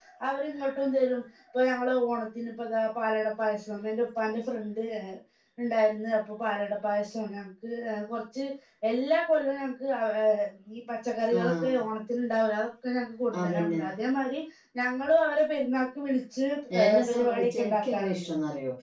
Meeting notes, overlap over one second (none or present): present